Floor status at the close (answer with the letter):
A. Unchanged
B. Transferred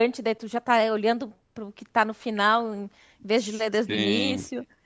B